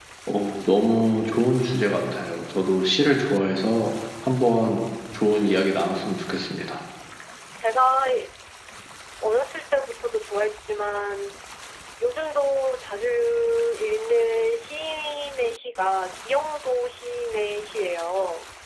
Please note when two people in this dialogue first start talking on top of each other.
none

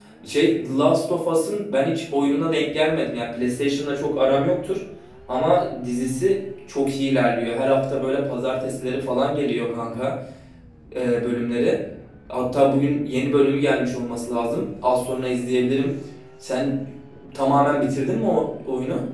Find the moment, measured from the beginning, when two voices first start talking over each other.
none

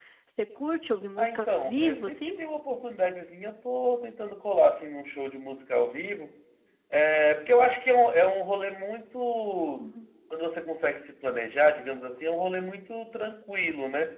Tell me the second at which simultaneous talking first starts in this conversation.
1.2 s

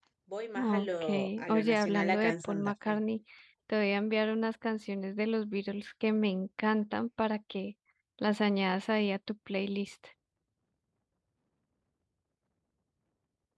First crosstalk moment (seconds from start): 0.6 s

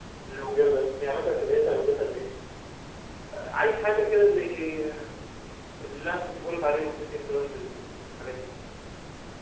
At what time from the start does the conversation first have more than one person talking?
none

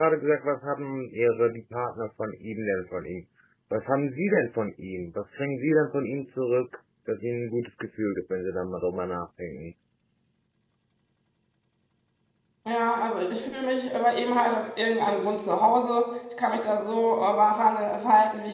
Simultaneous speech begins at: none

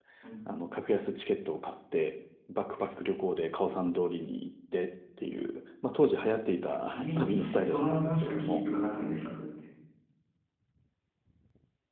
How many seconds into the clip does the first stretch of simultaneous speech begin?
6.7 s

